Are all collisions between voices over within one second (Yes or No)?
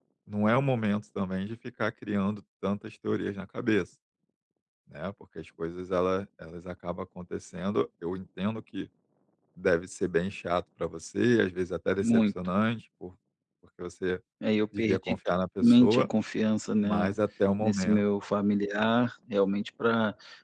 Yes